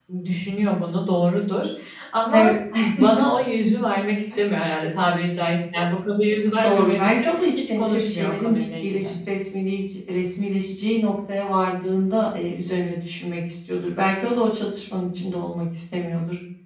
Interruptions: present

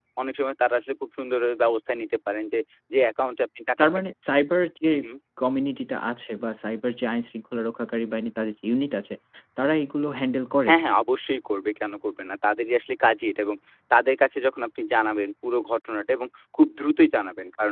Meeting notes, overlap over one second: none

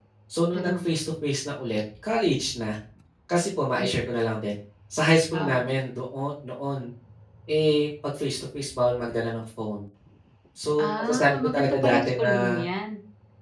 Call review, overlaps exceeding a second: present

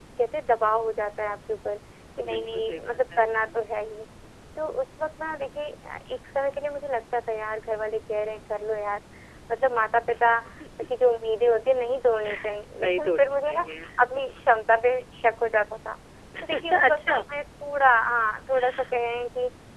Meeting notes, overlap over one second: present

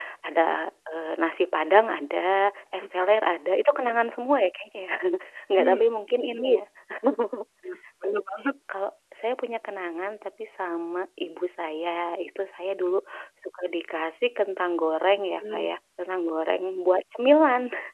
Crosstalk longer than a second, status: none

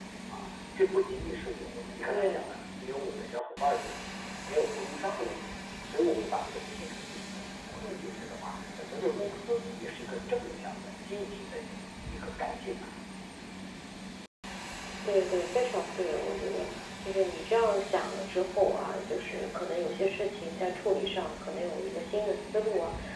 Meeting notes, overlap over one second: none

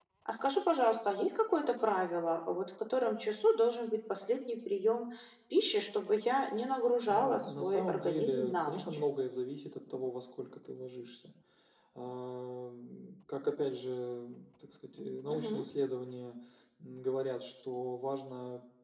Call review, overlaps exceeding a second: present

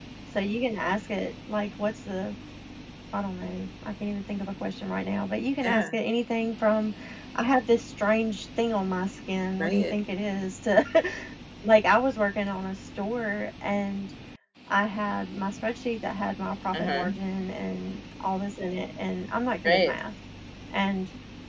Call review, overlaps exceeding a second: none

